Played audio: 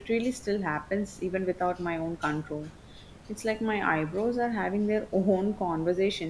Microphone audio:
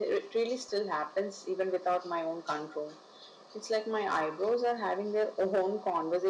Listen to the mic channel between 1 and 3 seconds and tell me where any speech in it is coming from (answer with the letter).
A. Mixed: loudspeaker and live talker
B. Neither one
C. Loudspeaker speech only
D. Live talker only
C